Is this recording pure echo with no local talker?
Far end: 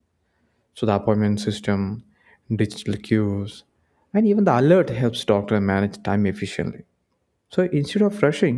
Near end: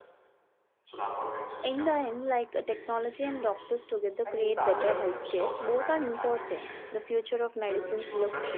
No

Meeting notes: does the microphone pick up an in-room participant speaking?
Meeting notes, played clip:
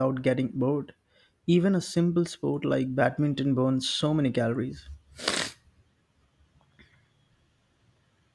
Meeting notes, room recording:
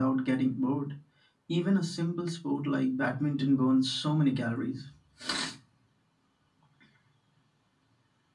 No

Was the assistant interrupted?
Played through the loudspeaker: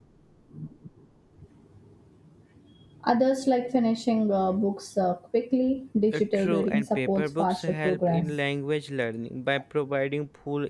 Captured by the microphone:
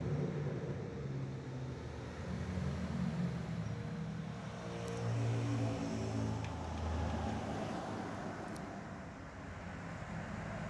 No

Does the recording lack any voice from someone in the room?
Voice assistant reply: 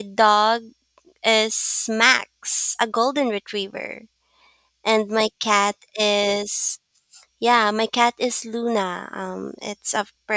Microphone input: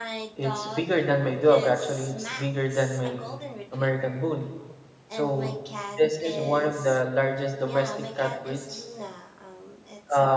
No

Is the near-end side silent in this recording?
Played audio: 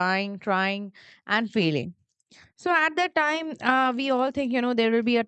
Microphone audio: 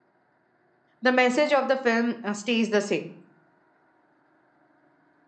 No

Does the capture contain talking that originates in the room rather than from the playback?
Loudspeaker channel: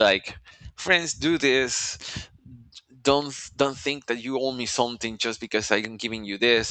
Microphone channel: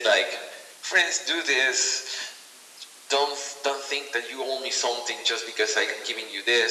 No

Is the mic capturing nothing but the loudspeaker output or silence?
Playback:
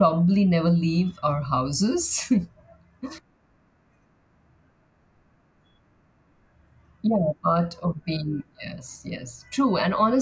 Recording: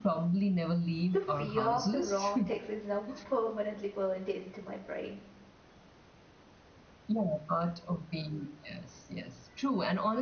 No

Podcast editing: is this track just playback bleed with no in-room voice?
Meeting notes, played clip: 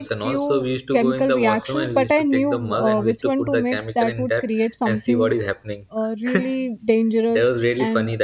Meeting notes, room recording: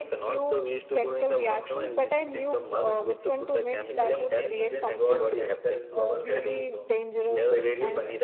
No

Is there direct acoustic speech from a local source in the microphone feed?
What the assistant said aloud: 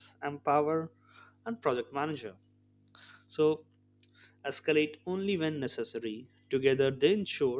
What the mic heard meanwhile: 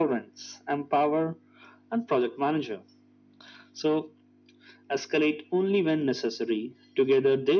No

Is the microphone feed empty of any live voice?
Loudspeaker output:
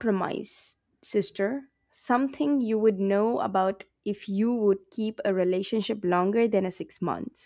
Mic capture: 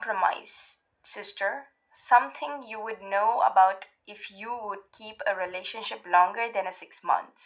Yes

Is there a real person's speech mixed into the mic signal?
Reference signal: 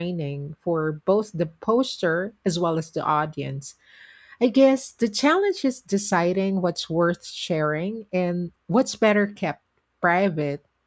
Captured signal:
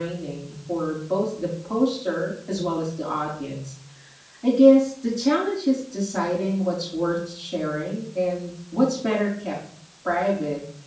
No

